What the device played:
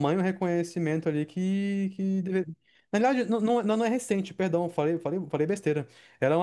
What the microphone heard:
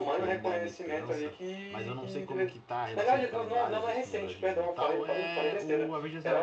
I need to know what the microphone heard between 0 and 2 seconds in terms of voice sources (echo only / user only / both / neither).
both